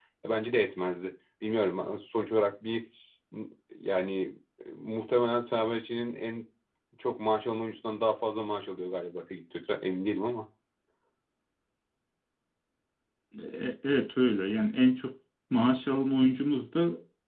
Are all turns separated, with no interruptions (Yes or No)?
Yes